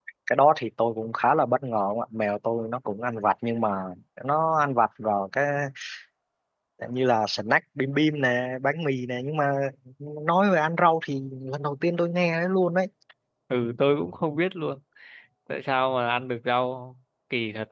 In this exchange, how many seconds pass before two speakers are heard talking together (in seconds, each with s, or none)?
none